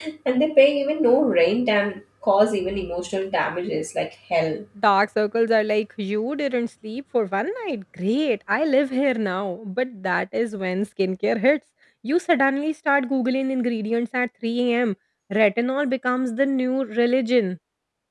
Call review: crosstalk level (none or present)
none